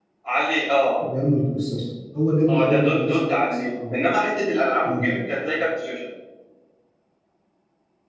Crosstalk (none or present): present